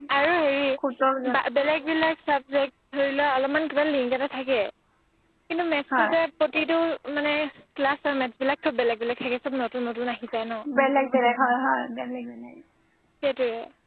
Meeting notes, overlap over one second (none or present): none